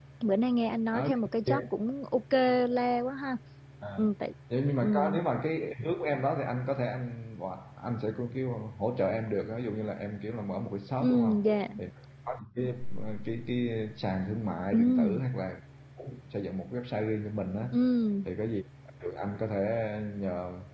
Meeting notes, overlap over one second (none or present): none